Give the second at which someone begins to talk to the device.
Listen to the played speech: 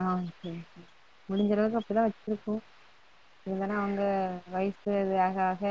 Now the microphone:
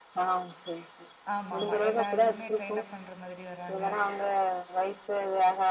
1 s

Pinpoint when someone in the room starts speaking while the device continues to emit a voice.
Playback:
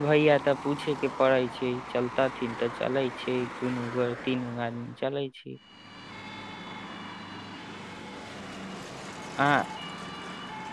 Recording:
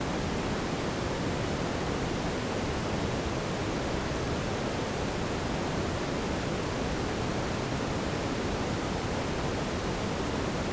none

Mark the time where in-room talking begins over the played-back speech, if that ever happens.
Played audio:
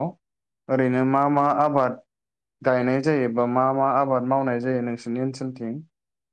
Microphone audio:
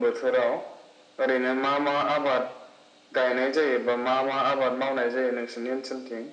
none

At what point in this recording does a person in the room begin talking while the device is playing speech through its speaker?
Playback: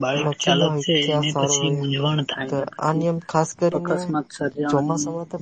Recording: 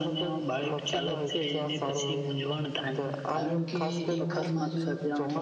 3 s

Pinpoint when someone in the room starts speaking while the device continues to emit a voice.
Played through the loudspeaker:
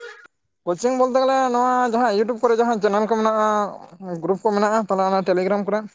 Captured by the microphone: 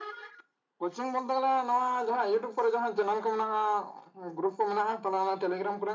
none

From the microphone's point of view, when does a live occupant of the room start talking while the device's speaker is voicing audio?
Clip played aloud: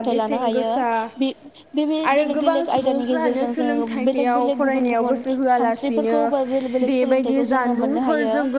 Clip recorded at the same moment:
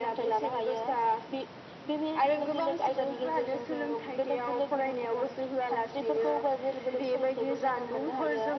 none

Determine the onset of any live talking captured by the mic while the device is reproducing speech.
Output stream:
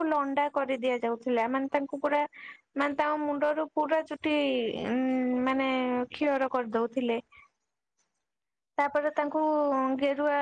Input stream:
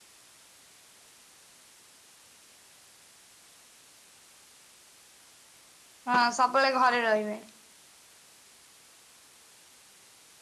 6 s

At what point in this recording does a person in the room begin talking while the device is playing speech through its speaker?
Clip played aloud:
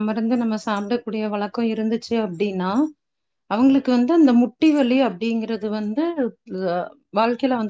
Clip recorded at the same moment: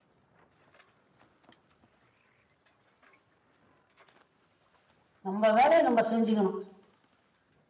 5 s

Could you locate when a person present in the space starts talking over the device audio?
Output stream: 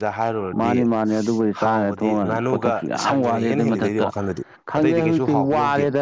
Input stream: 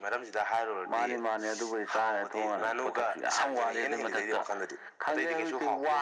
none

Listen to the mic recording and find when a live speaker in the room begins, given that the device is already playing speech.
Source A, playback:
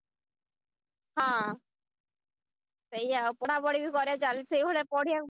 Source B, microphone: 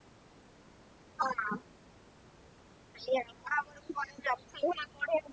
none

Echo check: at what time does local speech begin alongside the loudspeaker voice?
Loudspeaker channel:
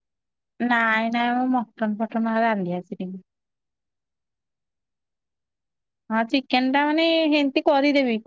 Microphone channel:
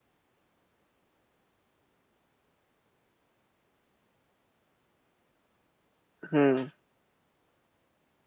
6 s

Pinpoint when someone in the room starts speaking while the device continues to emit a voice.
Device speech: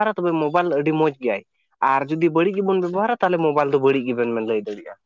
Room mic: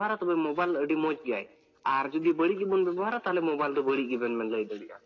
none

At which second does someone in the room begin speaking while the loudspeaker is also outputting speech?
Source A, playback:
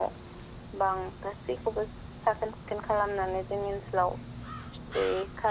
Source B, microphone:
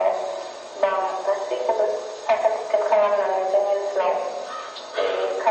none

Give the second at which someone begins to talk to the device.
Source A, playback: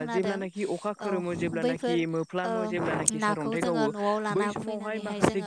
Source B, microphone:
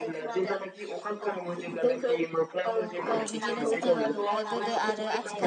3 s

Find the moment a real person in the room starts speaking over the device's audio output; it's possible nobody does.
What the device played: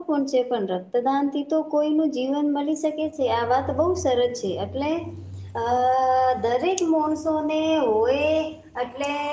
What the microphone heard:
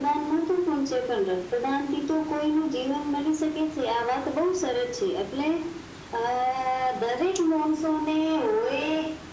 none

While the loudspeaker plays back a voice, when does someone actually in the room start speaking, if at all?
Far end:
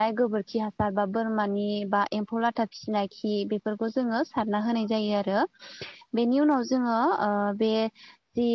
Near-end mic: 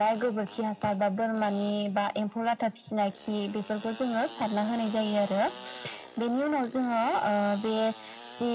none

